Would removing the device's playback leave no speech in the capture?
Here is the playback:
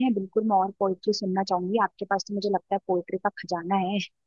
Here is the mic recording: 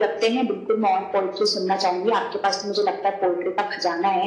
Yes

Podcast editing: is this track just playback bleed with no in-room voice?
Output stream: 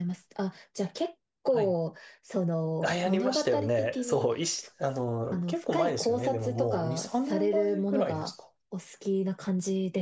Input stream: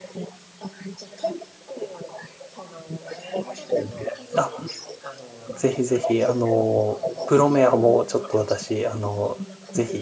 No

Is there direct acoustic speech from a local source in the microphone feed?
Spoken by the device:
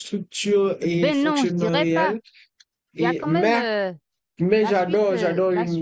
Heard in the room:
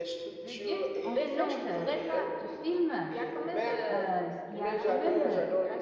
Yes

